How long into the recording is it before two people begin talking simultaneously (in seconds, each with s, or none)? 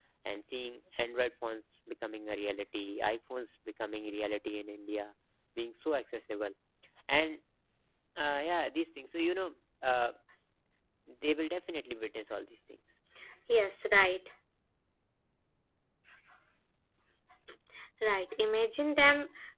none